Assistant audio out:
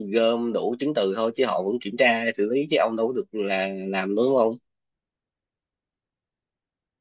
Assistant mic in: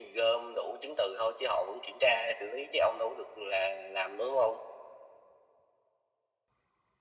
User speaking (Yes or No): No